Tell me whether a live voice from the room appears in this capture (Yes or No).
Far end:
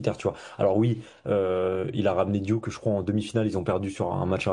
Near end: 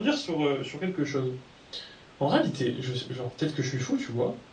Yes